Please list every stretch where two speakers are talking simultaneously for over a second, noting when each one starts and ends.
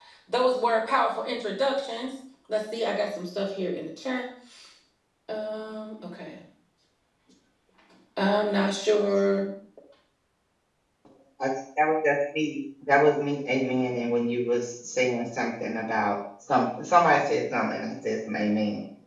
none

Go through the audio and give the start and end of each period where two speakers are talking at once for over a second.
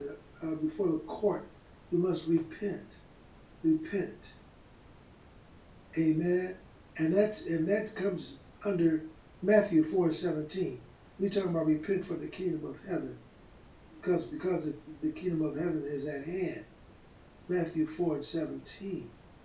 none

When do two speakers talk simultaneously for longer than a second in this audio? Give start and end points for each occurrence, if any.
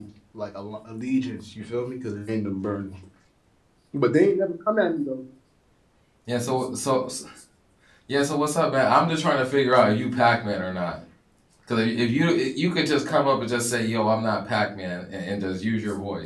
none

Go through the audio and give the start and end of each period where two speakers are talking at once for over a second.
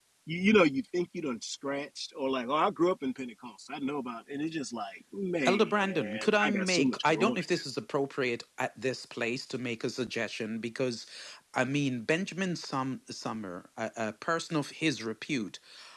5.5-7.6

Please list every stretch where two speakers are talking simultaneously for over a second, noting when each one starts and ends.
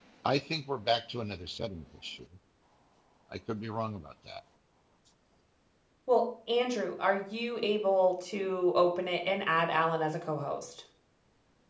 none

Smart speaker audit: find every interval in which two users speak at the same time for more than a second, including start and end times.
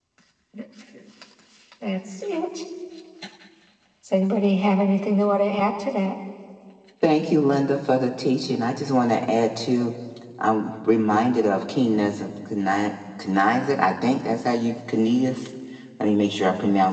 none

